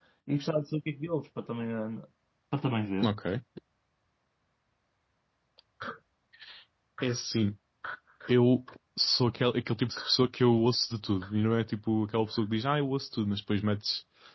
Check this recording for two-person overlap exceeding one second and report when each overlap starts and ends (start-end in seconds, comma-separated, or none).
none